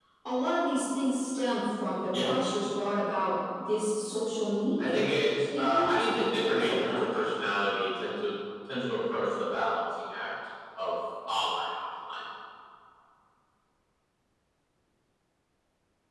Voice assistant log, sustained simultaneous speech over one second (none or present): present